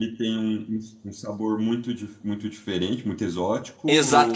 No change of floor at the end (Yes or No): No